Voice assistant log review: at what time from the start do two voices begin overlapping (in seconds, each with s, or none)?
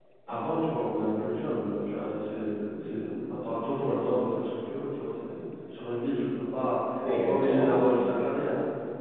7.0 s